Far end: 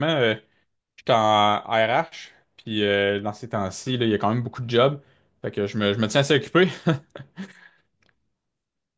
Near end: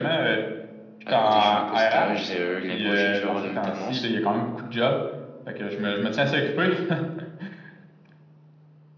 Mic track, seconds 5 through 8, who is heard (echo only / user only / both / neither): echo only